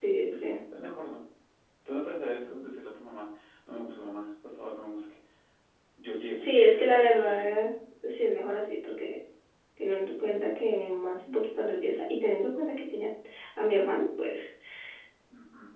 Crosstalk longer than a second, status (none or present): present